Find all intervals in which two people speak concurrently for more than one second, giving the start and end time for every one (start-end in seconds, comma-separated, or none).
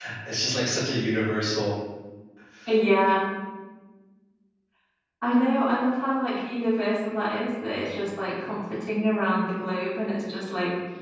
none